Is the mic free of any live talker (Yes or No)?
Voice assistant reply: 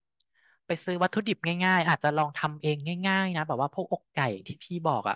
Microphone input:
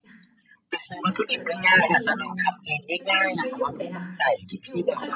No